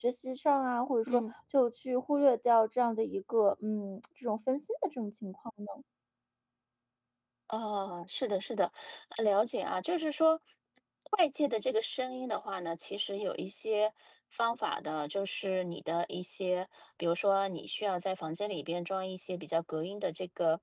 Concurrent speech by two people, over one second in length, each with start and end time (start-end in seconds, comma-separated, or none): none